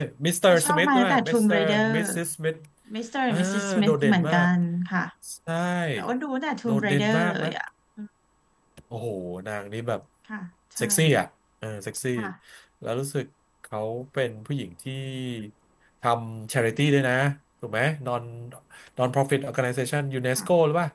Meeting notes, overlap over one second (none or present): present